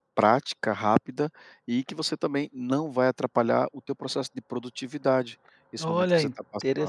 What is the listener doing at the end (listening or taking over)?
taking over